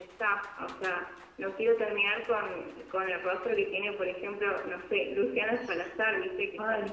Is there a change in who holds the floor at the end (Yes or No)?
Yes